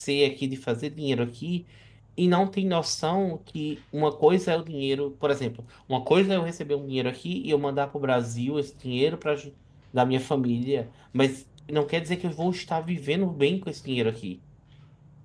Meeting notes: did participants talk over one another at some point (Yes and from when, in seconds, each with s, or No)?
No